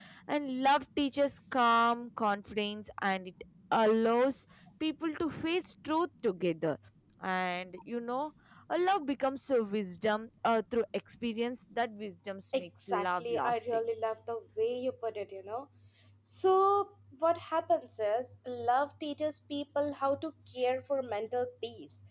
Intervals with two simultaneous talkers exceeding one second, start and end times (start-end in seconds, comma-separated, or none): 12.6-13.8